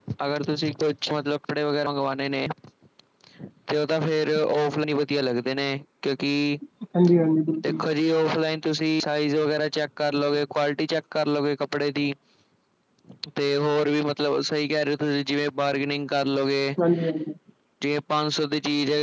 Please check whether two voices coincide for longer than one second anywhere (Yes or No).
No